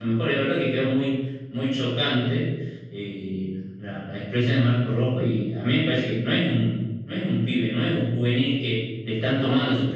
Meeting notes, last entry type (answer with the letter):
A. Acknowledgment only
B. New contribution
A